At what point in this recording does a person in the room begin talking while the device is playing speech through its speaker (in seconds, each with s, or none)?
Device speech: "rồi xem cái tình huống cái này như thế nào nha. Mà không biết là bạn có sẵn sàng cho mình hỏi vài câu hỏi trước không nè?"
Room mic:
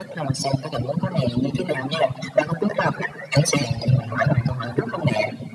none